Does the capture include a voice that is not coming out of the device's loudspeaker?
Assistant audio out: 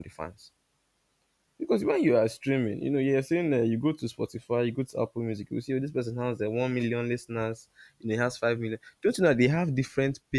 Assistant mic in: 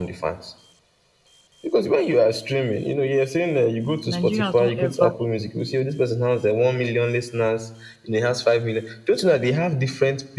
Yes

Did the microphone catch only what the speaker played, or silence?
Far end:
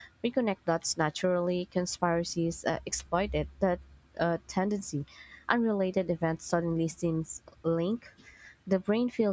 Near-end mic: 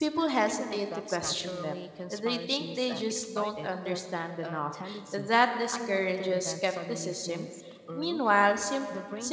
No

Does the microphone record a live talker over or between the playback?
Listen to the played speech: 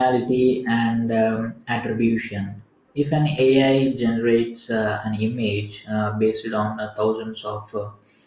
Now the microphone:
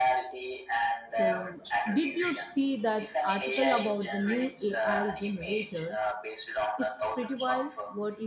Yes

